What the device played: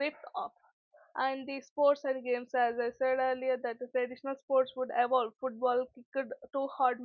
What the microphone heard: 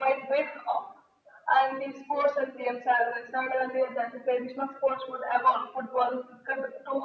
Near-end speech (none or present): none